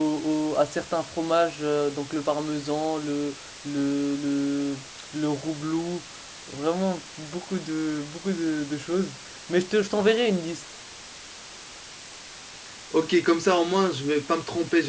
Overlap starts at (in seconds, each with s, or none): none